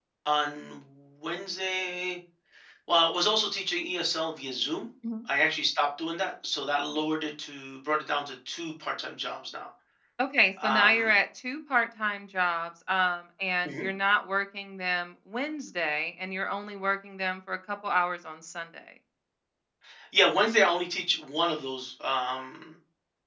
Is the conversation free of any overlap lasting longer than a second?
Yes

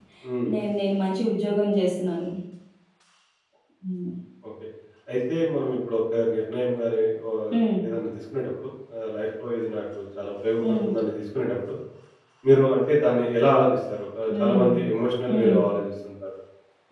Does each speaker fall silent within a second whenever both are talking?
Yes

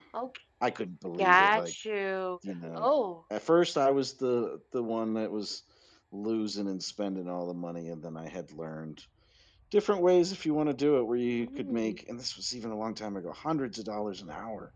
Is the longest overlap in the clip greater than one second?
No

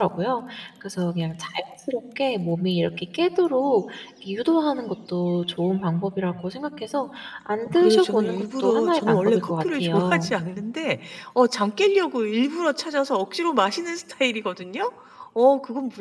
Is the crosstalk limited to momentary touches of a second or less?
No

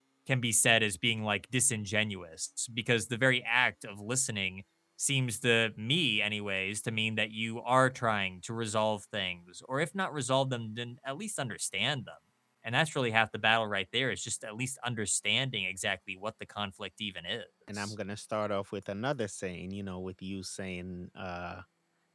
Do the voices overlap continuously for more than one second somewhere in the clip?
No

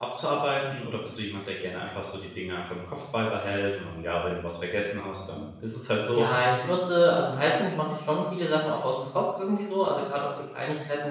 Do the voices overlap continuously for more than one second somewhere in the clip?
No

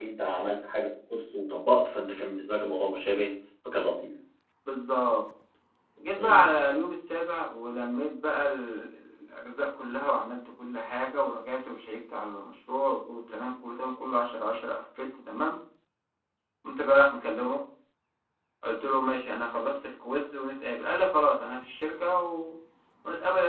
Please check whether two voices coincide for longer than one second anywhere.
No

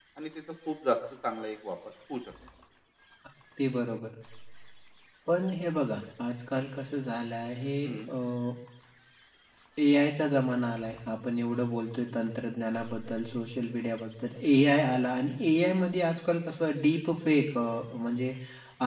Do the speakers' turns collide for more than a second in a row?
No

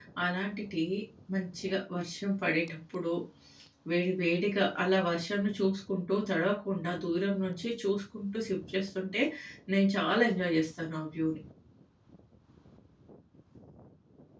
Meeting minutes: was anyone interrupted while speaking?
No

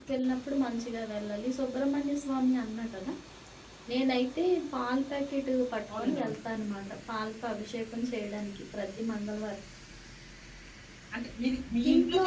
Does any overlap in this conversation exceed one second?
No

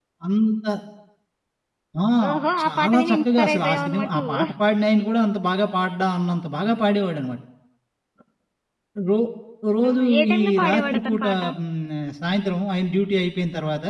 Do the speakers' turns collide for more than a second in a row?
Yes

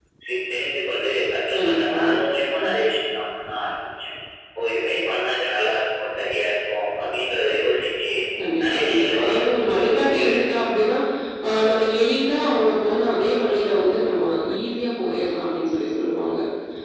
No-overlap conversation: No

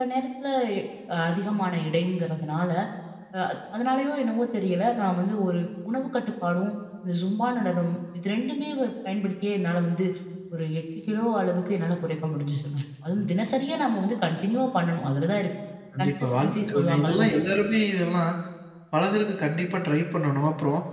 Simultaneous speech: Yes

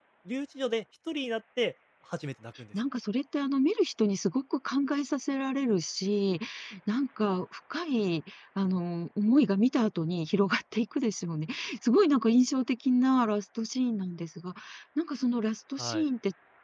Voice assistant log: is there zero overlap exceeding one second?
Yes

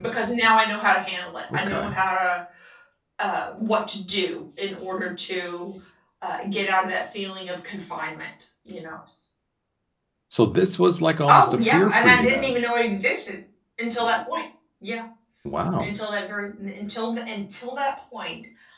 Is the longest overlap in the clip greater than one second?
Yes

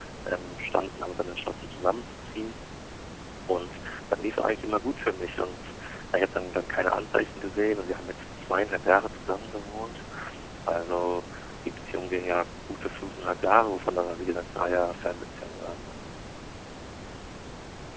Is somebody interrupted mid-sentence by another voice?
No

